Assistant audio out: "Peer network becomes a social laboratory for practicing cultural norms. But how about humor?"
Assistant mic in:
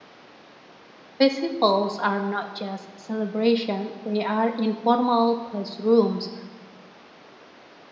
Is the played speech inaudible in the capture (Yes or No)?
Yes